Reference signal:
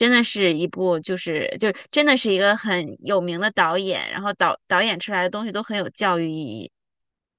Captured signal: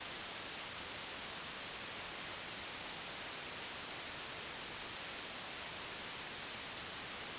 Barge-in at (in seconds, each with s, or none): none